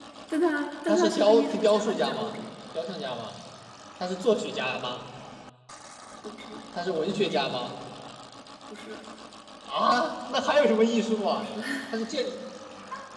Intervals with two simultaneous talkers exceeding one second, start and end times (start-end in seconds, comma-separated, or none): 0.9-2.3